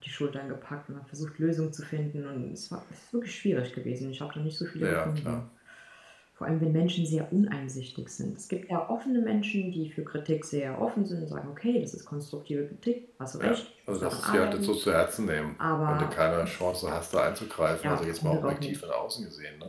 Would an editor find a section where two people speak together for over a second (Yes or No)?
Yes